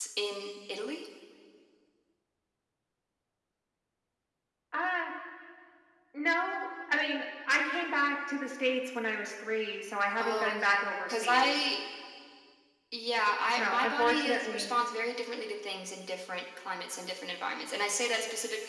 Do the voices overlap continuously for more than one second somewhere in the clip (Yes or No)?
Yes